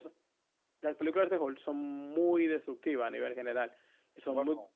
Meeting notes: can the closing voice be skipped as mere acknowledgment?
Yes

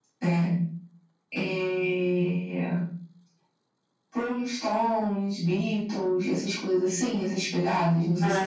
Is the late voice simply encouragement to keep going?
No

